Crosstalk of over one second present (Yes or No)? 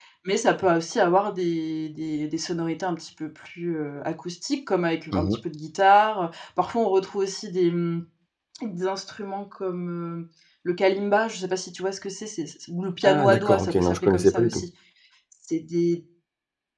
Yes